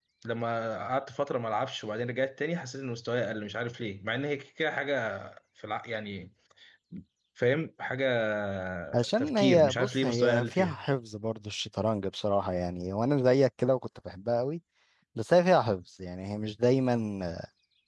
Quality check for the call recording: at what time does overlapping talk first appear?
9.2 s

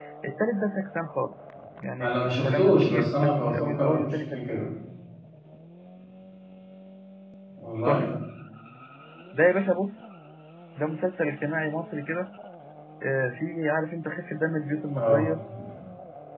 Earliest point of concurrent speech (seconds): 2.0 s

